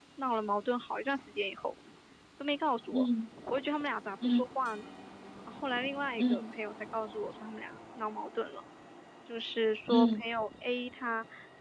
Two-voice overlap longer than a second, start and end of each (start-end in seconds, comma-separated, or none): none